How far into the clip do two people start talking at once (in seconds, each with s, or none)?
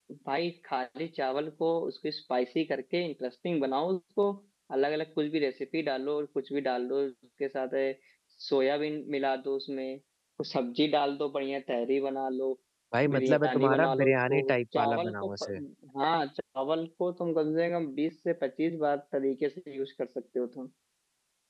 13.1 s